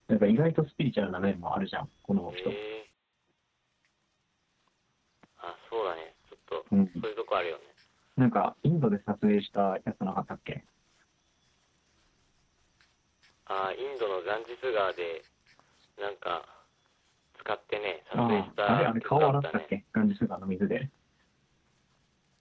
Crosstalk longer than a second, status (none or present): present